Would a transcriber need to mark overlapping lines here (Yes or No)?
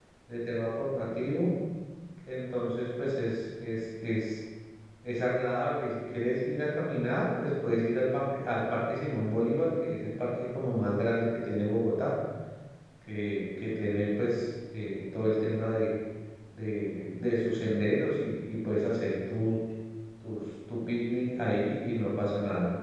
No